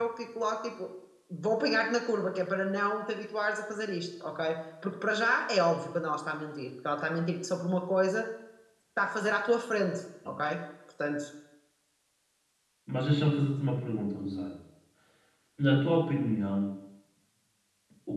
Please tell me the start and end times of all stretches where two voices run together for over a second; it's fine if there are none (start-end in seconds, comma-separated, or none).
none